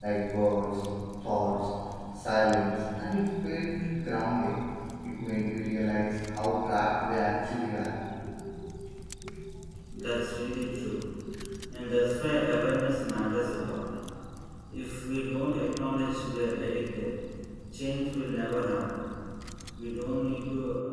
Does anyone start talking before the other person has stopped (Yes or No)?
No